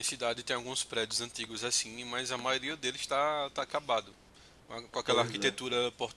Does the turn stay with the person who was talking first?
Yes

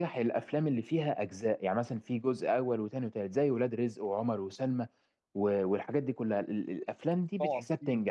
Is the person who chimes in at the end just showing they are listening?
Yes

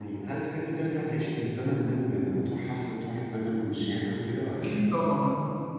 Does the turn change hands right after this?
Yes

